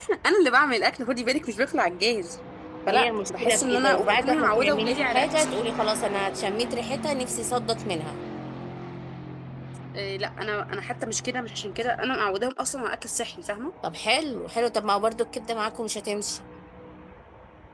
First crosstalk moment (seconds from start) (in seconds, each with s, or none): 2.9 s